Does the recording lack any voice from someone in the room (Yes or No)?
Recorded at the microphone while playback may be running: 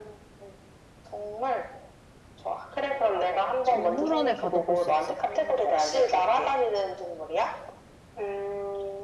No